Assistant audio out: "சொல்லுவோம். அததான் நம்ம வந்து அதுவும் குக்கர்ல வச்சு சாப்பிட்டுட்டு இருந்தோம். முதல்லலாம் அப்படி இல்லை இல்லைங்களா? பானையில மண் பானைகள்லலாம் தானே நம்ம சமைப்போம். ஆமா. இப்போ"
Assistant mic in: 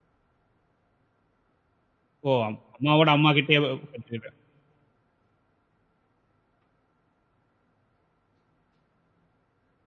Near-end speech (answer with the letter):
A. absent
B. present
B